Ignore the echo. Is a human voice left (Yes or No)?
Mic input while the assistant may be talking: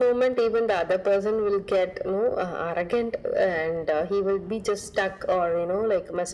No